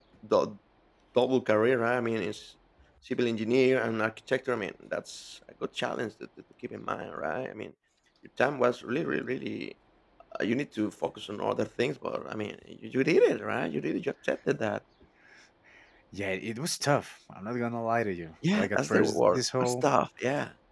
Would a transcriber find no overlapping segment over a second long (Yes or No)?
No